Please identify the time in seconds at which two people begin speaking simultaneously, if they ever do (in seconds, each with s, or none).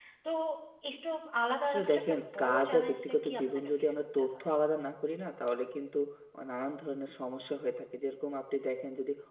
1.6 s